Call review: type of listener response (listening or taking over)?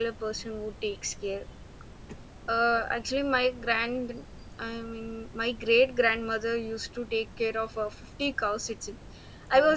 listening